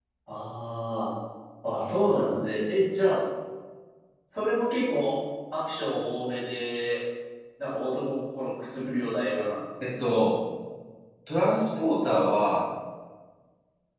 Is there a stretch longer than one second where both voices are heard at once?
No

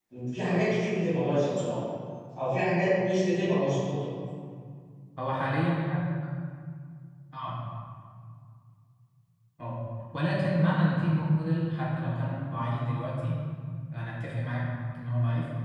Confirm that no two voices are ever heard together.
Yes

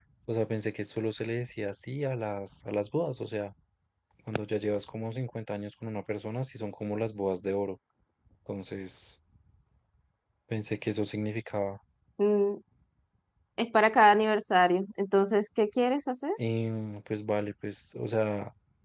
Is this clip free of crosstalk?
Yes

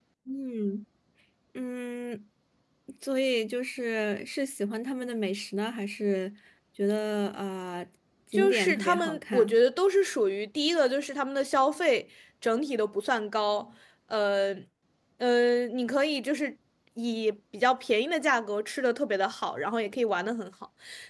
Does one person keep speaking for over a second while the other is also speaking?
Yes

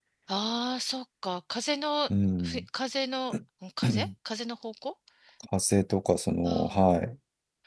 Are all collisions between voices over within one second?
Yes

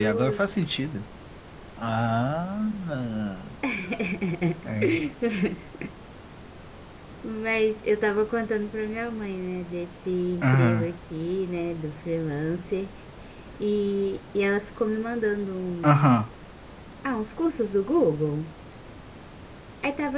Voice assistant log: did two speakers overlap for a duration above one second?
No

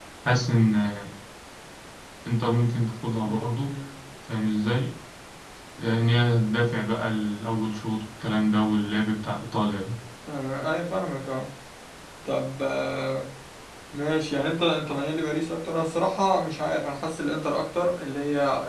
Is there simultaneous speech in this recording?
No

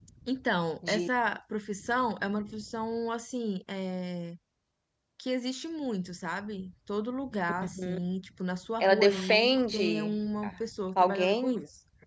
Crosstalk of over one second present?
Yes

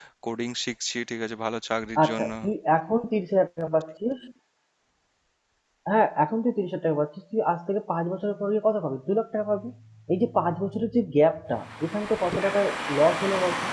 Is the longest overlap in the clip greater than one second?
No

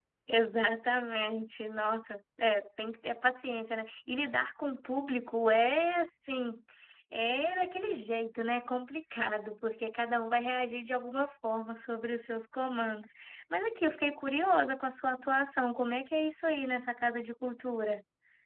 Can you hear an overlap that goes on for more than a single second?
No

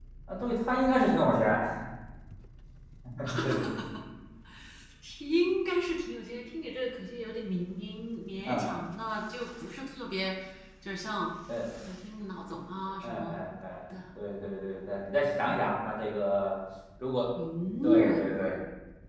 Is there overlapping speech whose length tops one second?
No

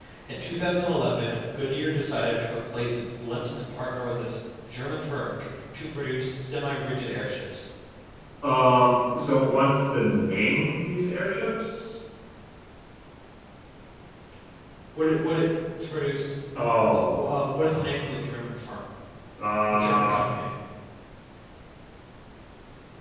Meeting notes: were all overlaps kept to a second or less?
Yes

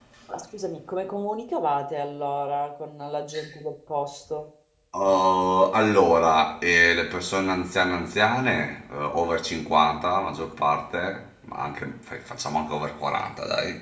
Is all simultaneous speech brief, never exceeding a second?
Yes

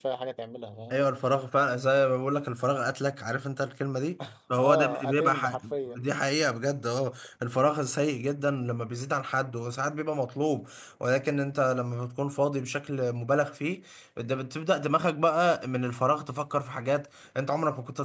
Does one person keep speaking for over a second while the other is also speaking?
Yes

